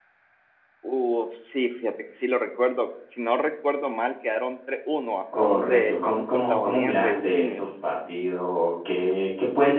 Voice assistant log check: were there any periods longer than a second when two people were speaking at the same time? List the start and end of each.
5.4-7.6

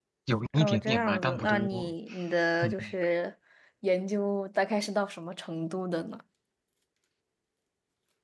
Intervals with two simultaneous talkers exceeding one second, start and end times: 0.5-1.9

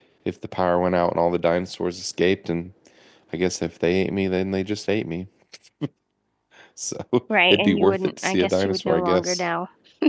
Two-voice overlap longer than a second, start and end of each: 7.5-9.4

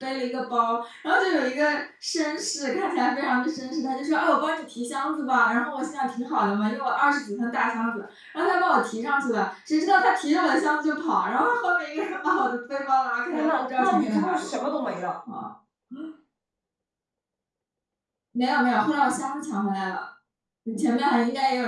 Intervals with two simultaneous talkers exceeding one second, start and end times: 13.3-14.6

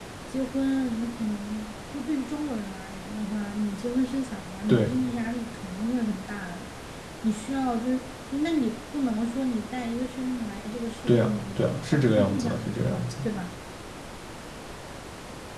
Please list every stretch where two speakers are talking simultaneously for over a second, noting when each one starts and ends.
11.1-13.1

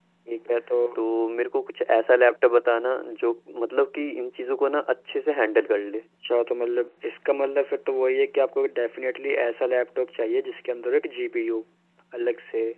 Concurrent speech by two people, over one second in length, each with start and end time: none

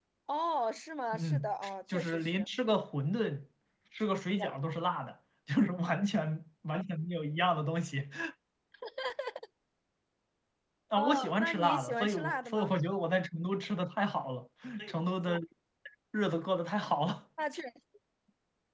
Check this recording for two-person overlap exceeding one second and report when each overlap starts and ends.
1.1-2.5, 11.0-12.7

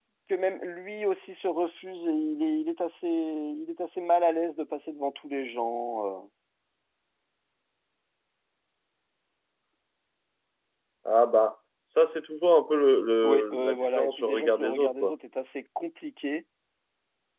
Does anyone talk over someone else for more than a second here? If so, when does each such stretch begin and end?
13.2-15.1

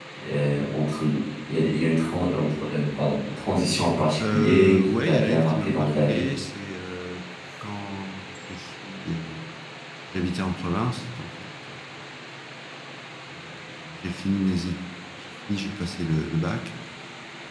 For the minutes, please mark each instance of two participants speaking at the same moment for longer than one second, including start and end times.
4.2-6.2

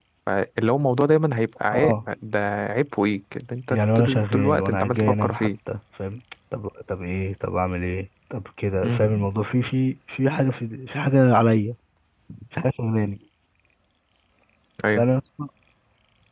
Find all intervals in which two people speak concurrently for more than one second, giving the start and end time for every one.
3.7-5.5

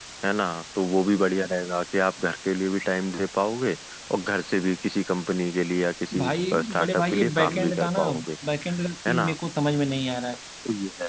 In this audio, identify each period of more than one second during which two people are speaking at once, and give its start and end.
6.6-8.0

